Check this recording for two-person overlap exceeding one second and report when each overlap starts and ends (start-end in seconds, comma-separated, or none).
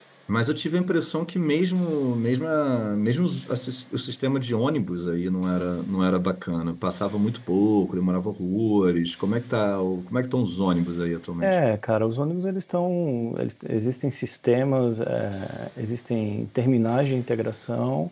none